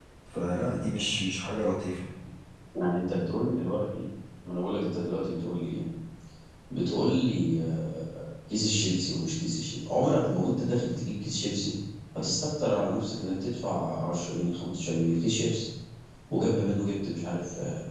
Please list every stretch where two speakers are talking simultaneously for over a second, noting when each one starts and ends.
none

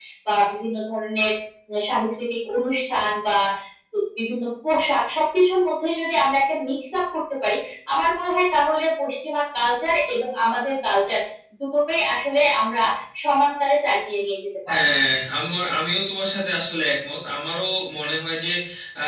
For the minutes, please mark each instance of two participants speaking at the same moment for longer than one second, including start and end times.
none

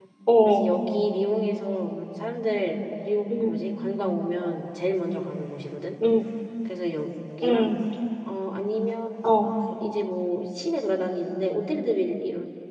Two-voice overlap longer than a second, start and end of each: none

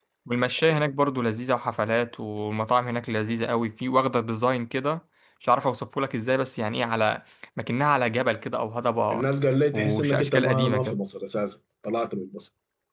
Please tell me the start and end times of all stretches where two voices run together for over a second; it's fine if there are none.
9.7-11.0

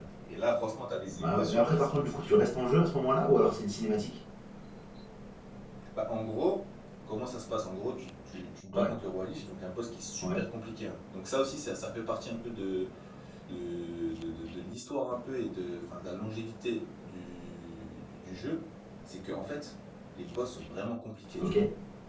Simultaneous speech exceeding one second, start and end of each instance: 1.1-2.5

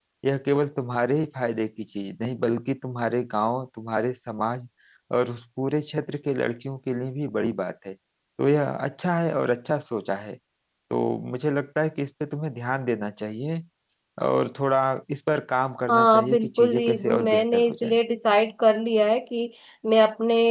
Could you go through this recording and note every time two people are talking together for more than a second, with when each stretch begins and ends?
15.9-18.0

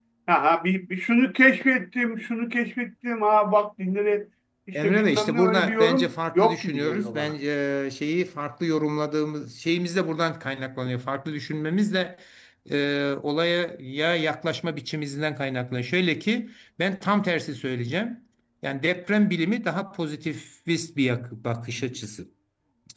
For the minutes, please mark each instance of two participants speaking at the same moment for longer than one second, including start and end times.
4.8-7.3

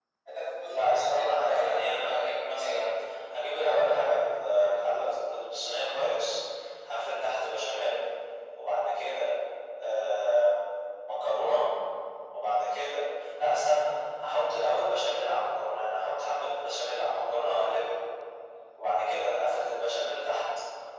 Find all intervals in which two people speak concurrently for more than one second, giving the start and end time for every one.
0.7-2.8

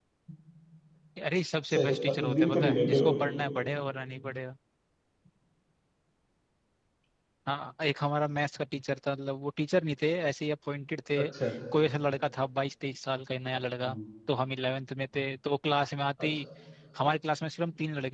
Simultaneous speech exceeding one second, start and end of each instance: 1.7-3.2

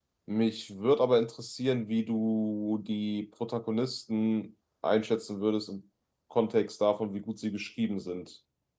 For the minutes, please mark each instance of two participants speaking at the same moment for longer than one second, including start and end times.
none

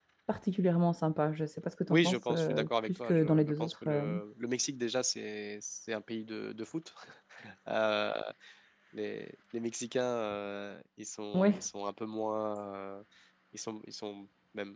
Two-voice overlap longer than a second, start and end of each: 1.9-4.0

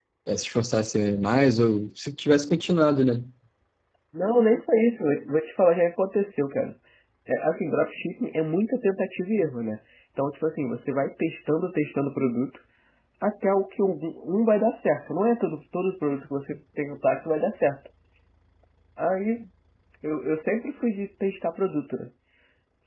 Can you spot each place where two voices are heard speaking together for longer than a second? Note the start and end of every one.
none

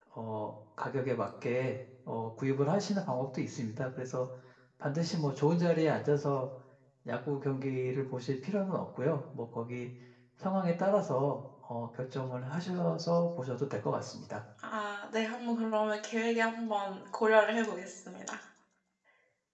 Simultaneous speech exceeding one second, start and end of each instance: none

